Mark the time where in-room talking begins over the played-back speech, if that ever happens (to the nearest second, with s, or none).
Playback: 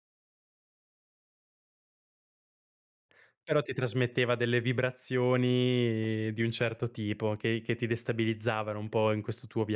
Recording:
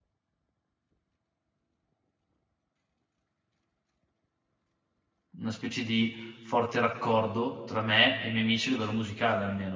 5 s